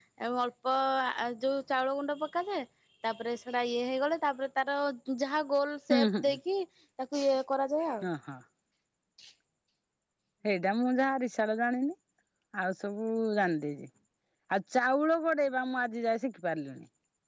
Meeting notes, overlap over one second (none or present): none